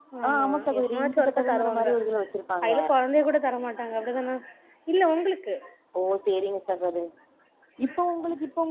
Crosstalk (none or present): present